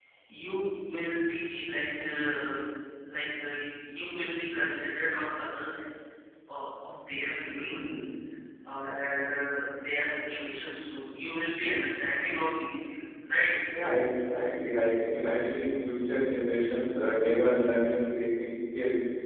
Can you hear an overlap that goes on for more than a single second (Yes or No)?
No